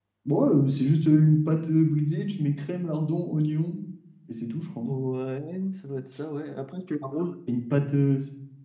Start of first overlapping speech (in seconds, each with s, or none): none